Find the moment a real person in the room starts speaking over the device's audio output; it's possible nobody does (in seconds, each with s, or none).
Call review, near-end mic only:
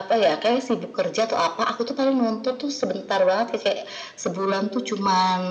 none